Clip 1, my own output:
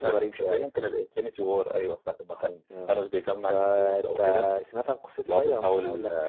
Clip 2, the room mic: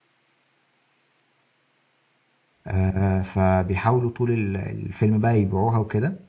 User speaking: Yes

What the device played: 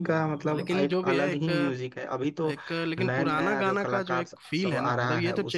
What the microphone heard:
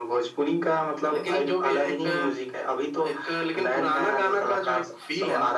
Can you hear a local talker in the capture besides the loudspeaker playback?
No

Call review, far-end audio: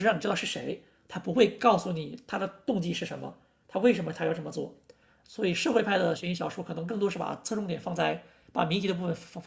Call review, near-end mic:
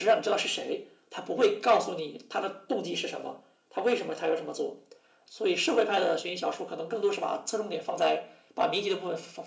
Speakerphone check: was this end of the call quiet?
Yes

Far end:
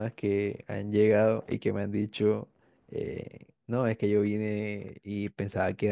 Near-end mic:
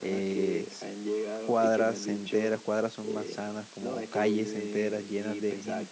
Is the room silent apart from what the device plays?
No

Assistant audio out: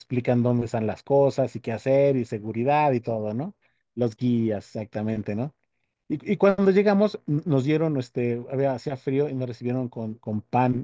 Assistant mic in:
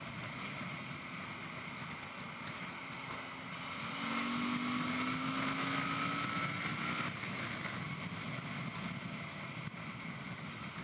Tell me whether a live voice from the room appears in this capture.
No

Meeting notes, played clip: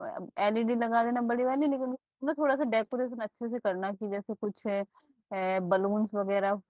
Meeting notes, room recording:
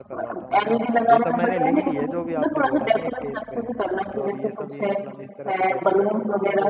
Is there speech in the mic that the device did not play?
Yes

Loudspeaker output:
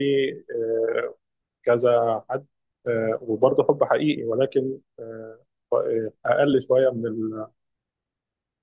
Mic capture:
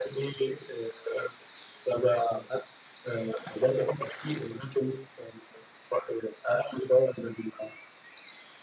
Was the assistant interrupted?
No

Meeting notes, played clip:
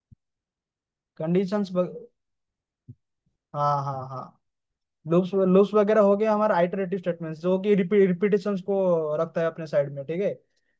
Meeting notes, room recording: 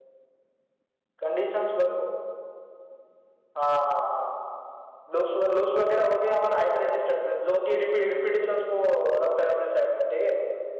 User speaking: No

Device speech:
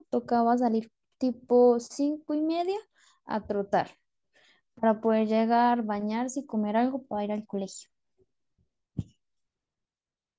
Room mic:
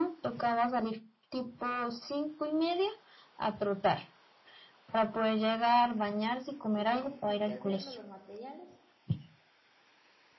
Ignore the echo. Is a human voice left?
Yes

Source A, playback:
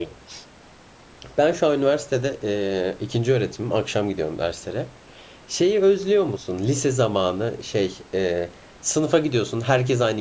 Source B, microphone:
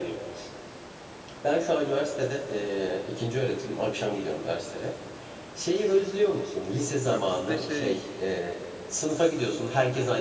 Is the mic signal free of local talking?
No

